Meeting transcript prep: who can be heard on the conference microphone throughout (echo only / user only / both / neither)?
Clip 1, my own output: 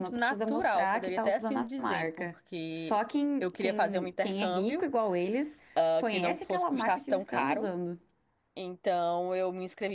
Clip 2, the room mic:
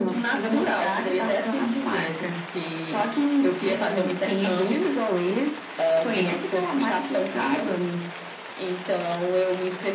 echo only